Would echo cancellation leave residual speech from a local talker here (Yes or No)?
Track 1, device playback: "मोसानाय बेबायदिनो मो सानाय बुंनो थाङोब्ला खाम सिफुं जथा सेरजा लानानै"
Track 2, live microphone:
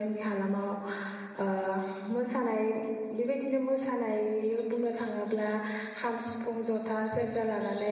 No